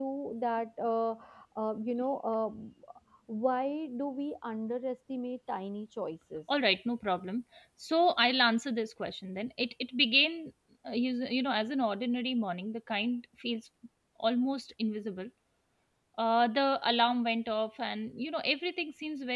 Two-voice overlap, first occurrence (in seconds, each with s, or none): none